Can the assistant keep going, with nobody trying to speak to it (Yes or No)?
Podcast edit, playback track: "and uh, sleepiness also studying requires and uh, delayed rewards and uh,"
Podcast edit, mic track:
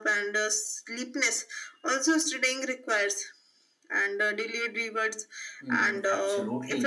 No